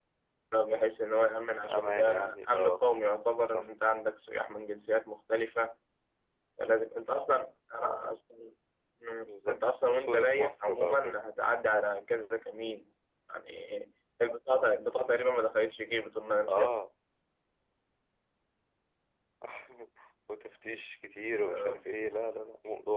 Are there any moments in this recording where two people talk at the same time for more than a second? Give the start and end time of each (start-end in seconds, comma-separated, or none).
1.7-3.0, 9.2-11.2